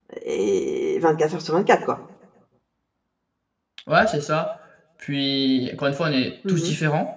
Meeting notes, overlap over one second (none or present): none